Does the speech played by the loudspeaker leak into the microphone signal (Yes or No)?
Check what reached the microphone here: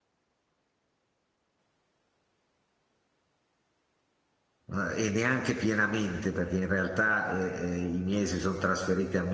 No